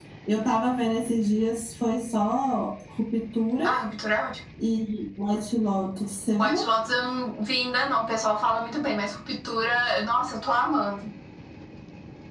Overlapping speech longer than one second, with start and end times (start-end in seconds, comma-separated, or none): none